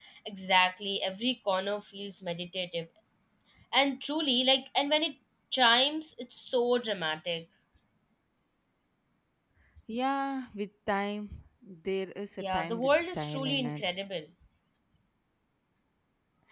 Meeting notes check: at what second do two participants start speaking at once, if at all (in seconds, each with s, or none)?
12.4 s